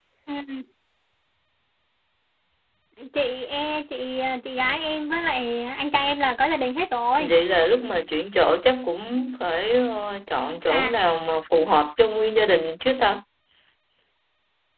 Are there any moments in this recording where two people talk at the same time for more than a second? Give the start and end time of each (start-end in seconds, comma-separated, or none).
none